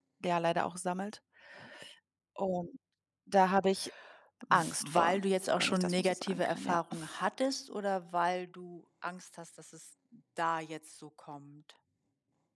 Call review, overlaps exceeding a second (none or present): present